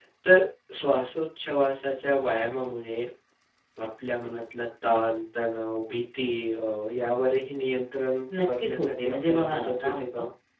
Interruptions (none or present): present